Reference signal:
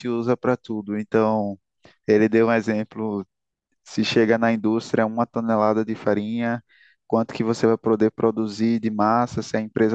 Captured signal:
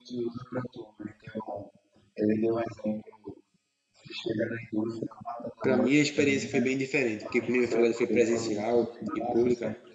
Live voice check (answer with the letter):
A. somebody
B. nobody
A